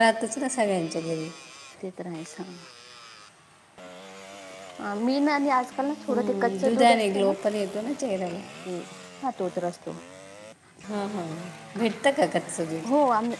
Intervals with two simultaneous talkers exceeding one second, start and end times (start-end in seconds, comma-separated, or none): 6.1-7.3